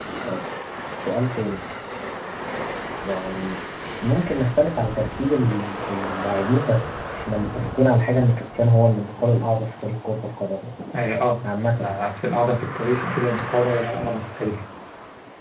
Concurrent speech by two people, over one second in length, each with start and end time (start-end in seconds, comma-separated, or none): none